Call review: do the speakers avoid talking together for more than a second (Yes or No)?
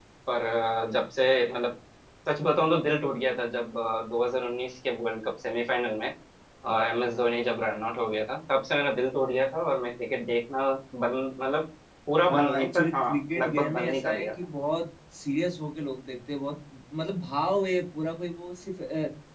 No